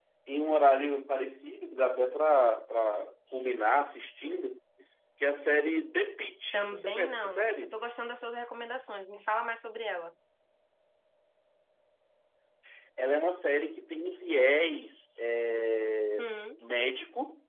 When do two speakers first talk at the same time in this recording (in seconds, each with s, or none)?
6.5 s